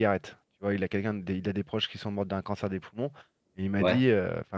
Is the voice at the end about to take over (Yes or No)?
No